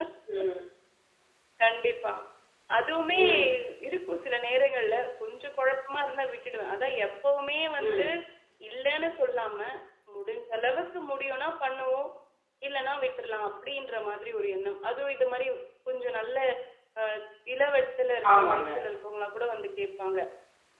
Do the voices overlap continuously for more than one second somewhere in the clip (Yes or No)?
No